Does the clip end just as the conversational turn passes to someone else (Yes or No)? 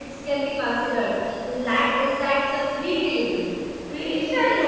Yes